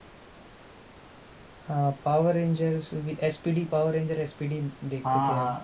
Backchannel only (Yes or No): No